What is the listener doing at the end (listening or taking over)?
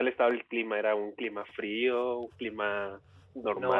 taking over